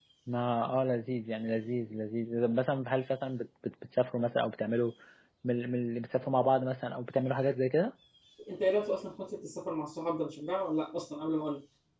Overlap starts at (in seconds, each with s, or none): none